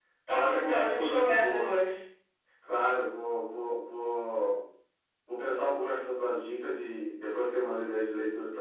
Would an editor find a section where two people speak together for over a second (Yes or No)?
Yes